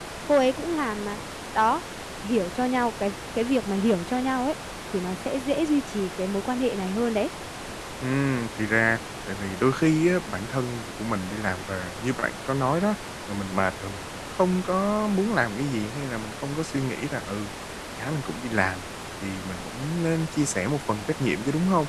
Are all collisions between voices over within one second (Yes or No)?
Yes